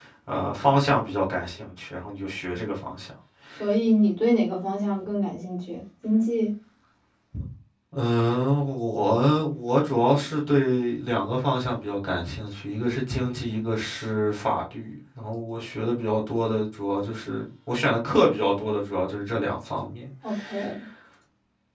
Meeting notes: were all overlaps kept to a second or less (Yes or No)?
Yes